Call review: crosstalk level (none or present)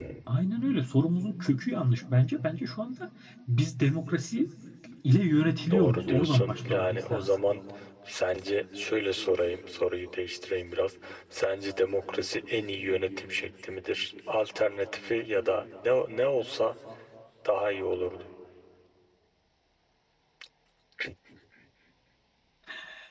present